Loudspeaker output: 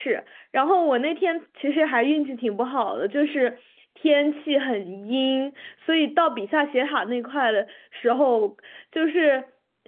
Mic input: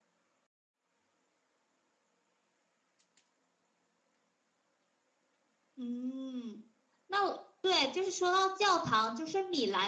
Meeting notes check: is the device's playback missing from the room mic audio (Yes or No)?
Yes